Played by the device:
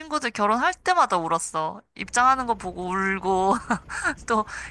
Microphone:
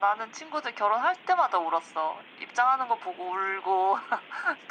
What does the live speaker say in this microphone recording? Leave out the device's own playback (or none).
none